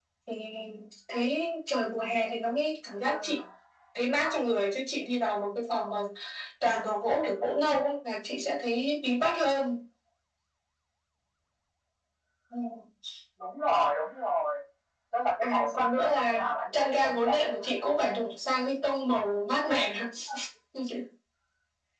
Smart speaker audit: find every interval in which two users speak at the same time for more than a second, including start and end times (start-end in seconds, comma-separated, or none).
15.4-17.7